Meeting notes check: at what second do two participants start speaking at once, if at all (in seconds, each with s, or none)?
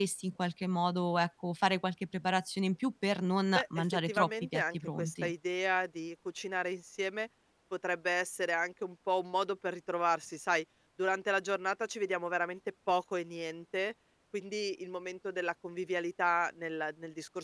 3.5 s